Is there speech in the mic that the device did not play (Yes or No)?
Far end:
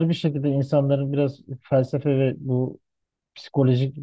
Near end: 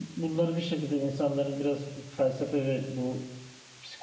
No